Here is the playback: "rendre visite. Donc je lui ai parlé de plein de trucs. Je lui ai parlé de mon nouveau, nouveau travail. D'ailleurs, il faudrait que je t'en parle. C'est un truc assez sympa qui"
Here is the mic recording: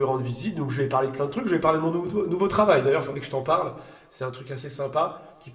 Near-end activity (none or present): none